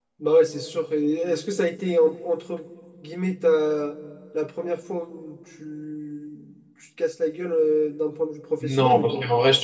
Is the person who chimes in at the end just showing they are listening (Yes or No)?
No